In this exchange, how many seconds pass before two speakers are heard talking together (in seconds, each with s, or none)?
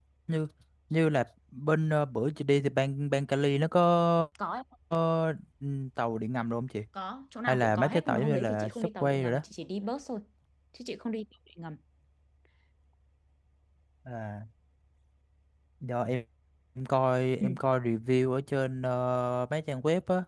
7.5 s